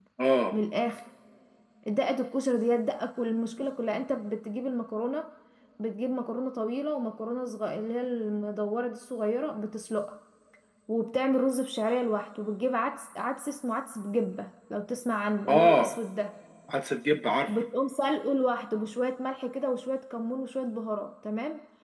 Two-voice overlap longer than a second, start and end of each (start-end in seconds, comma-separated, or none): none